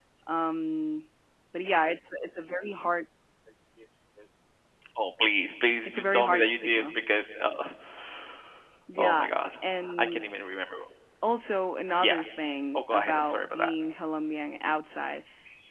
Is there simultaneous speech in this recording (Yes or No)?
Yes